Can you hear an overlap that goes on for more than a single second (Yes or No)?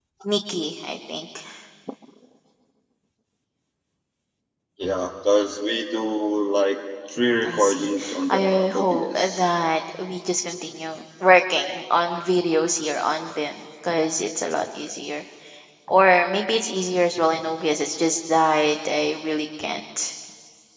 Yes